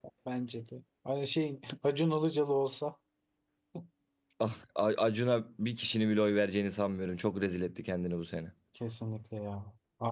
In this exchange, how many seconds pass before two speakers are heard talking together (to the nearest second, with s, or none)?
none